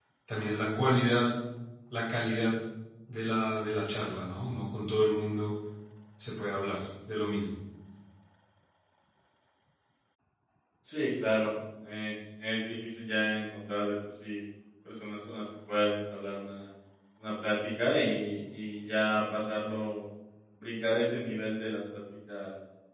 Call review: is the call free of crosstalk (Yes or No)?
Yes